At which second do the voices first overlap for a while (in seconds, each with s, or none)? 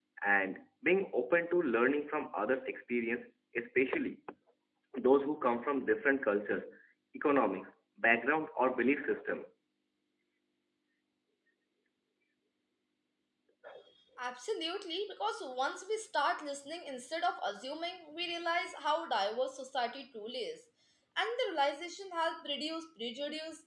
none